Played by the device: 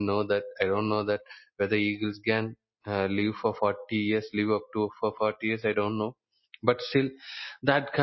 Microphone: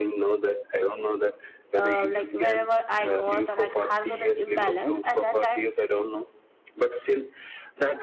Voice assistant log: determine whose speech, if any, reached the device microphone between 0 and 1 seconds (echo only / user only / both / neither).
echo only